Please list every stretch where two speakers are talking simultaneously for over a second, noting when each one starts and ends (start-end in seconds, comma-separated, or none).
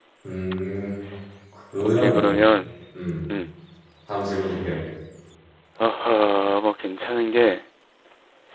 none